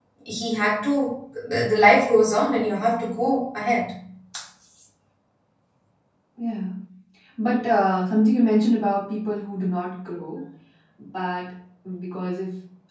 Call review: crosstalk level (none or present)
none